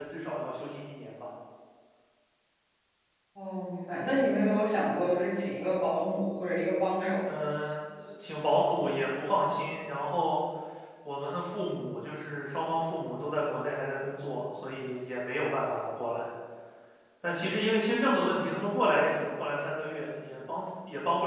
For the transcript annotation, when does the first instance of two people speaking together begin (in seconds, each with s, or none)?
none